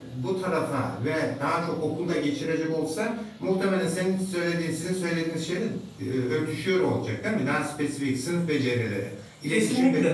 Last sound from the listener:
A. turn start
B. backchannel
A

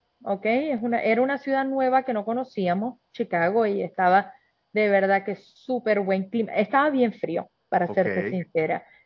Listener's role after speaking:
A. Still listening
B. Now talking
A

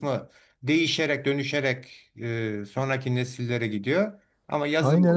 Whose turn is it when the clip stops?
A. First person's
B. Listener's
B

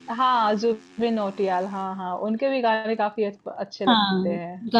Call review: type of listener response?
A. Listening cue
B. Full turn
B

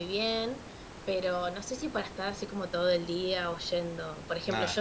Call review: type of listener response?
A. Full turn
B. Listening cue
B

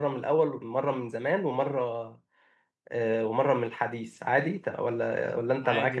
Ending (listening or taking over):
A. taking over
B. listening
A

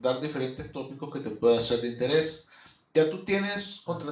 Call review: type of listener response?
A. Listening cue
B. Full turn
A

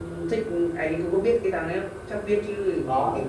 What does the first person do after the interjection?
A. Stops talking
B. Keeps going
A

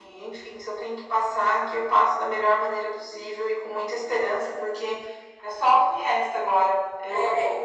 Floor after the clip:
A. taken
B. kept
B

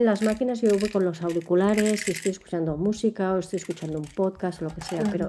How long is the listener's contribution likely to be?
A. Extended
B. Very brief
B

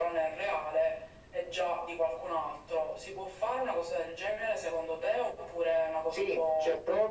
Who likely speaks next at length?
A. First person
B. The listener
B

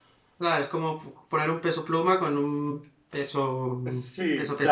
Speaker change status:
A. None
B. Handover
B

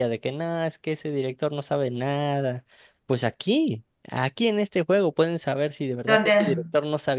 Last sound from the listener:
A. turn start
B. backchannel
B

